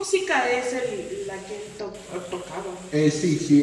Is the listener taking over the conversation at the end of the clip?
Yes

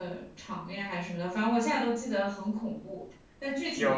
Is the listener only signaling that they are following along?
No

